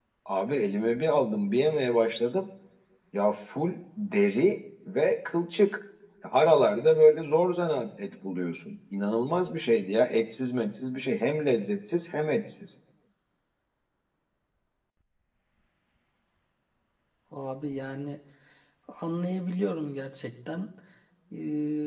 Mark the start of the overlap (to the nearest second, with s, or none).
none